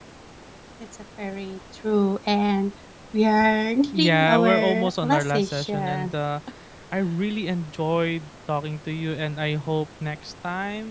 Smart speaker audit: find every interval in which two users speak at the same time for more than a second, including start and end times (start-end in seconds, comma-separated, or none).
3.9-6.2